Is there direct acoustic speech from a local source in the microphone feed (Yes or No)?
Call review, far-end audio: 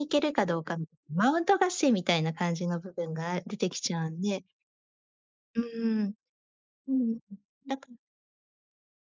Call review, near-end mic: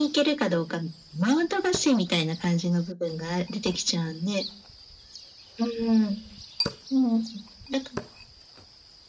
No